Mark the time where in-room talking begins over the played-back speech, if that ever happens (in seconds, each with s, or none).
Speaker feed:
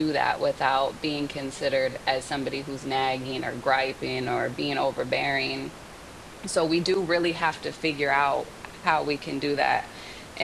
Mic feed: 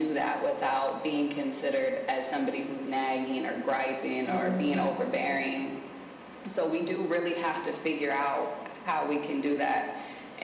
4.2 s